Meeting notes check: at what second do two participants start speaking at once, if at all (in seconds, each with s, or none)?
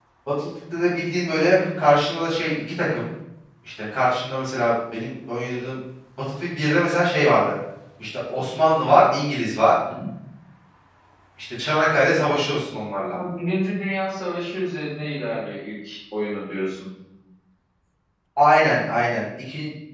none